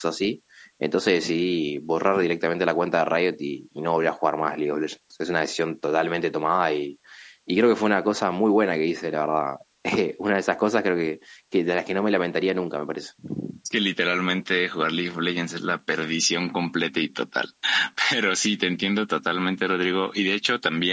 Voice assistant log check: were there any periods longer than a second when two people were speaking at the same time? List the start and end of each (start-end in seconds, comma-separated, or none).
none